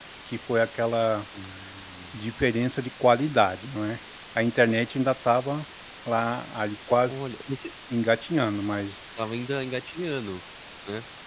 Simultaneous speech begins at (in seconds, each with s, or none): none